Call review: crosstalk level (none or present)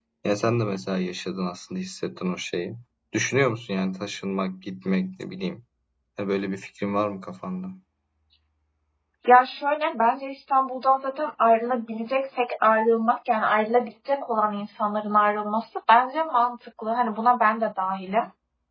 none